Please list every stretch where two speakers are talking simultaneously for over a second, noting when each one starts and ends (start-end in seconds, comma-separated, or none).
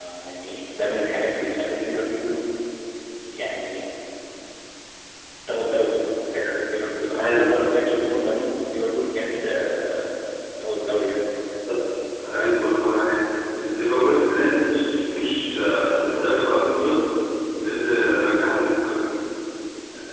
none